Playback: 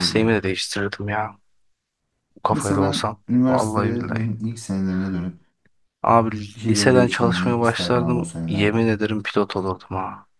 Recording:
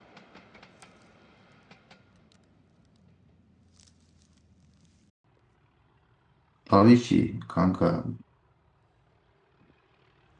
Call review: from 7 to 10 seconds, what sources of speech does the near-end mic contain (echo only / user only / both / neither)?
user only